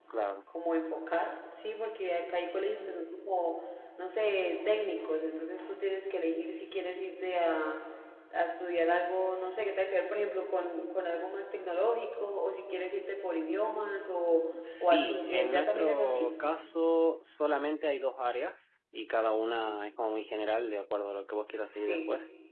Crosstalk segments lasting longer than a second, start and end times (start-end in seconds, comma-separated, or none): 14.6-16.4